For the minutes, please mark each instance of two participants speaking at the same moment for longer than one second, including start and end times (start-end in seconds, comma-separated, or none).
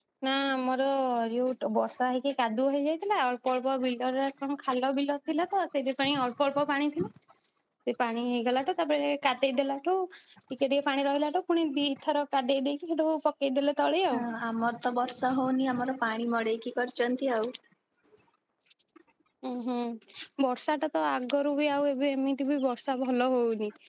none